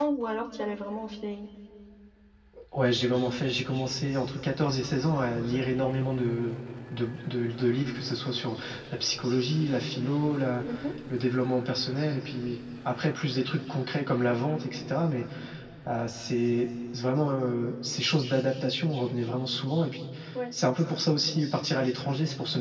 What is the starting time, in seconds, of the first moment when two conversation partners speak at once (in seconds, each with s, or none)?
none